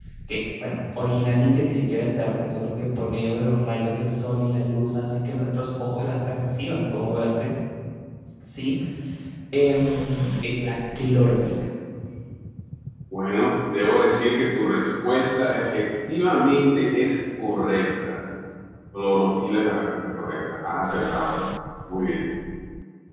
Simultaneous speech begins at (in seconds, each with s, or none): none